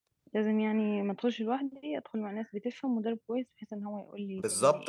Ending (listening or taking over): taking over